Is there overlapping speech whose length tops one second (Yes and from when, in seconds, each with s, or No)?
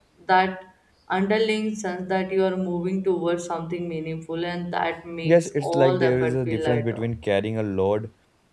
Yes, from 5.2 s